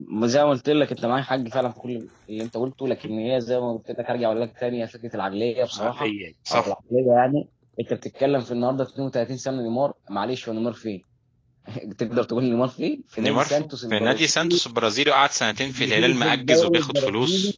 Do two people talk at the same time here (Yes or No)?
Yes